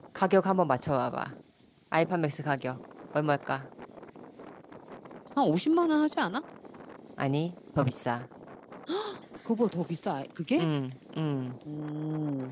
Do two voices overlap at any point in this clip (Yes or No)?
No